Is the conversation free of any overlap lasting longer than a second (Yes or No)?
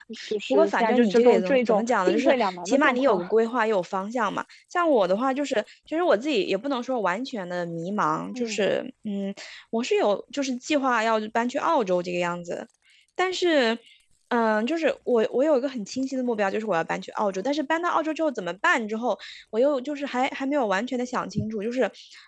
No